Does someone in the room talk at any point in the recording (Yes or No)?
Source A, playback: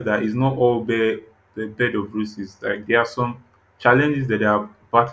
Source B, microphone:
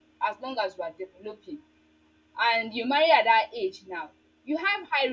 Yes